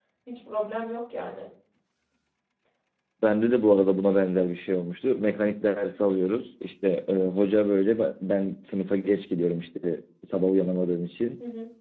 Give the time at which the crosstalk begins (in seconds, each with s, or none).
none